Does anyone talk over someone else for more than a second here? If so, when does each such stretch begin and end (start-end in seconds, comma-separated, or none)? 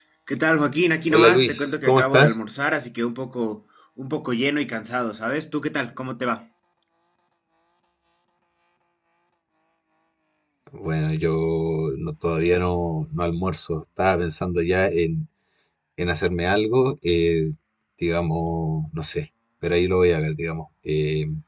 1.1-2.4